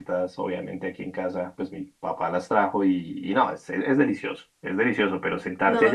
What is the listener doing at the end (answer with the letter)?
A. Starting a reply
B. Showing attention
B